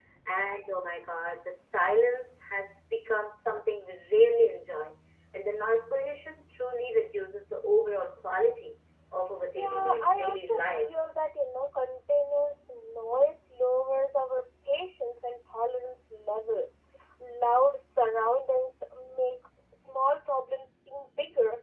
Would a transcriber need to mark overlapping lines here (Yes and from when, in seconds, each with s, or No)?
Yes, from 9.6 s